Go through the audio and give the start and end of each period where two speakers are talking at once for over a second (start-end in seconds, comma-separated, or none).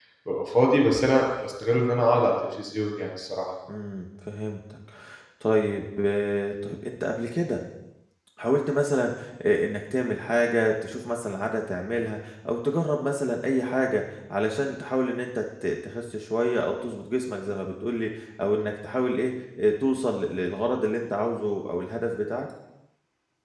none